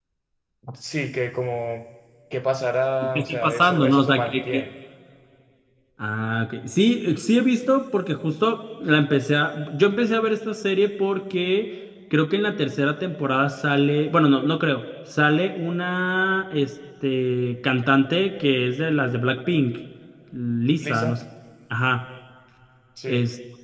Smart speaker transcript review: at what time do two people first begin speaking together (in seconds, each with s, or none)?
3.1 s